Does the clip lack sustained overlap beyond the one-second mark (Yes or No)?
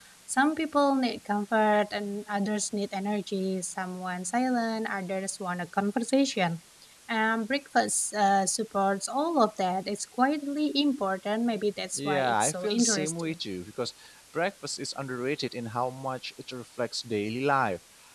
No